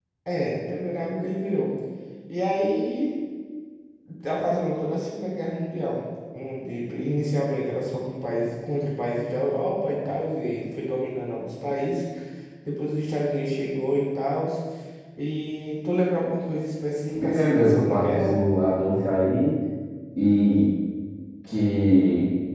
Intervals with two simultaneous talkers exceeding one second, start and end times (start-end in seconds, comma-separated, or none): 17.1-18.4